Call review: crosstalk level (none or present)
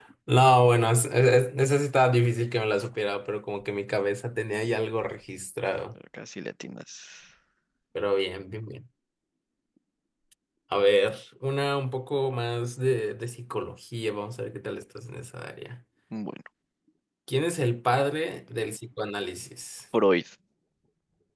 none